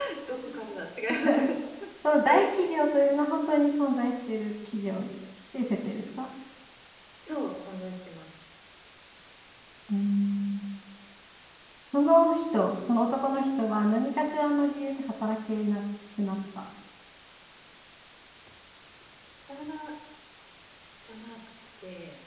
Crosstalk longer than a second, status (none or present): none